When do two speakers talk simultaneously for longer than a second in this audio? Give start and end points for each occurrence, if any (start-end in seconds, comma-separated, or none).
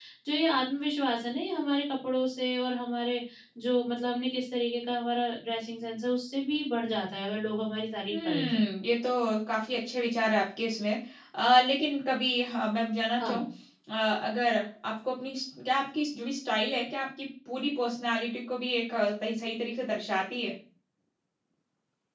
none